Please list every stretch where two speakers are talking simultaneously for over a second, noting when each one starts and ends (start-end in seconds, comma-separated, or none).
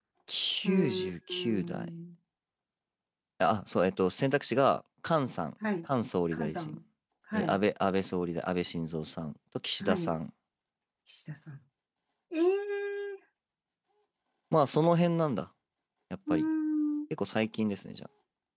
0.6-1.9